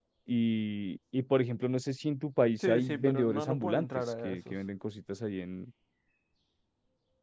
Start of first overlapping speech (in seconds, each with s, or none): 2.6 s